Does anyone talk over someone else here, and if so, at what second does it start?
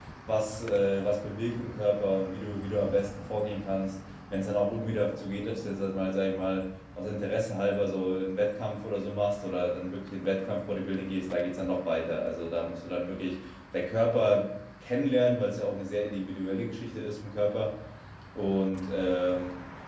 none

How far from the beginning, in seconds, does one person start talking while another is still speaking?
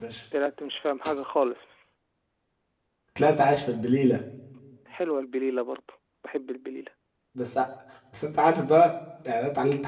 none

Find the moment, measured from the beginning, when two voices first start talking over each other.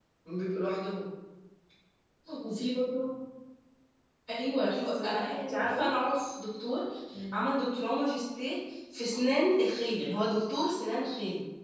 4.5 s

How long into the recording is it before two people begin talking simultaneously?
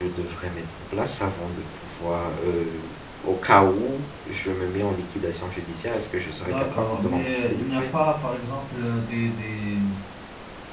6.4 s

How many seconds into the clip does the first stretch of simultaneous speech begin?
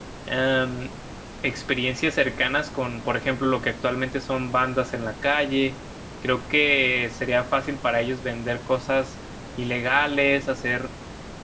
none

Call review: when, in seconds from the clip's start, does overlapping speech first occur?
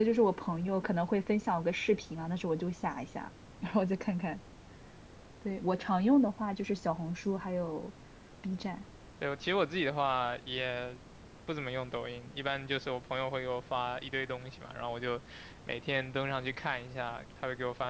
none

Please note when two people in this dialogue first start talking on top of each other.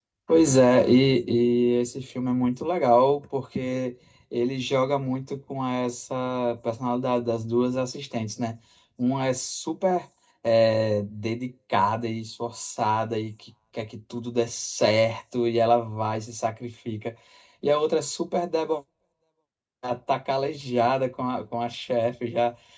none

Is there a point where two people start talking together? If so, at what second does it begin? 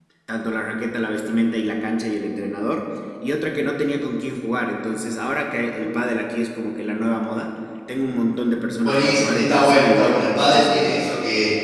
8.8 s

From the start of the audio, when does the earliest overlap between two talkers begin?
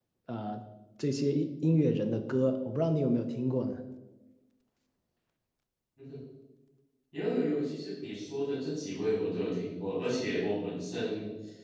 none

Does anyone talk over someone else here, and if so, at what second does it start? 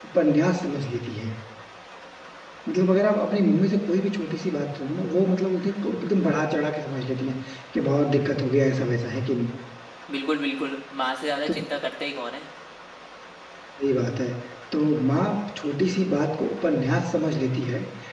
none

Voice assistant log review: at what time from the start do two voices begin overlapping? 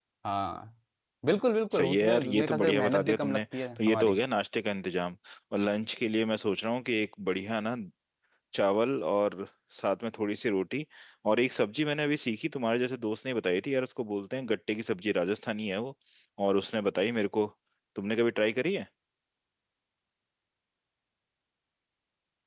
1.7 s

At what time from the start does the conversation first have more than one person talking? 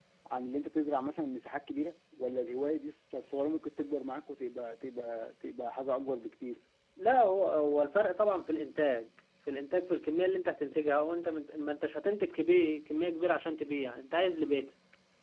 none

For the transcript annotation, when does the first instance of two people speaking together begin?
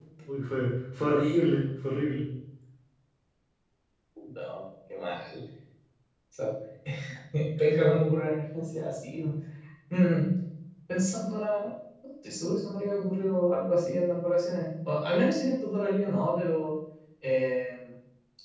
none

